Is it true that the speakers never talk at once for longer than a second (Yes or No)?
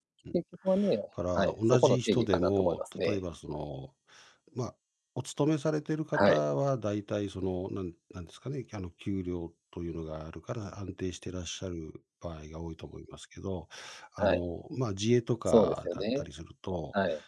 No